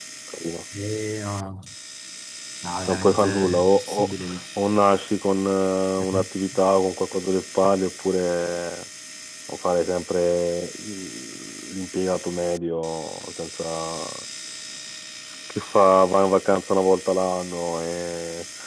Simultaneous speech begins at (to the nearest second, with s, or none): 3 s